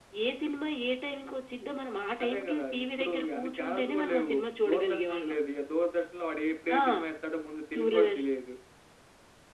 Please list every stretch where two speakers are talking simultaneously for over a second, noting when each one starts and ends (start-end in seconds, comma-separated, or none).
2.2-5.4